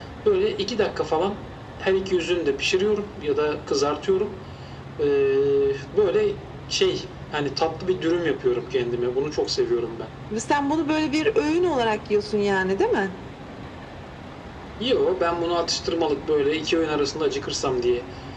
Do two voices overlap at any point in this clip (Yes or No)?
No